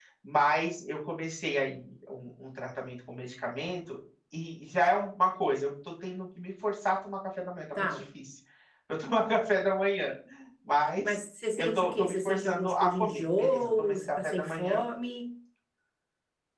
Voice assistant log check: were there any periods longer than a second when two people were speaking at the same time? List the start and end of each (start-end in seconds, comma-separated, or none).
11.6-14.8